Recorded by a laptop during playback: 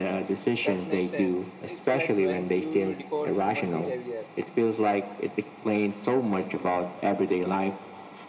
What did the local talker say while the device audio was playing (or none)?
that makes sense it's like trying to decode human behavior